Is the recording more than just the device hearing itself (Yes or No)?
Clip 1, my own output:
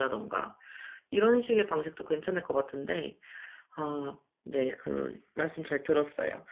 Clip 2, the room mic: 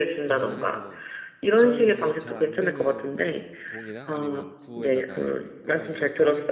Yes